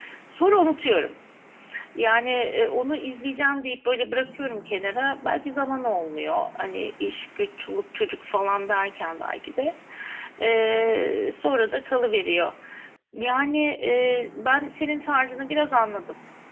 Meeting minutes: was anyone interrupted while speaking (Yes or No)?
No